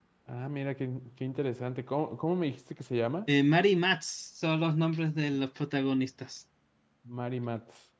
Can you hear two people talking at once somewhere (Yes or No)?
No